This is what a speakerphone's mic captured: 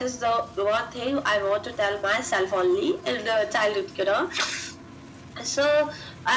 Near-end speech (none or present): none